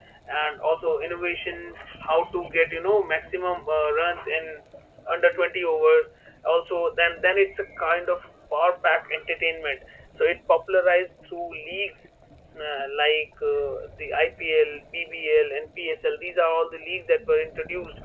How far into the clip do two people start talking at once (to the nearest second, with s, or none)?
none